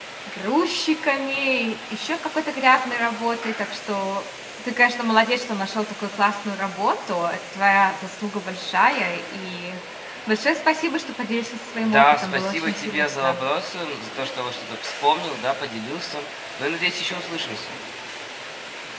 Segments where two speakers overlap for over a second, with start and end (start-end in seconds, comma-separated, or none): 11.8-13.4